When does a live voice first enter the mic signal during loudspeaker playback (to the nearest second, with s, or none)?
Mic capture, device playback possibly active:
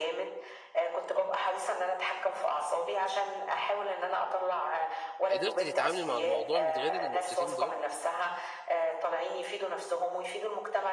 5 s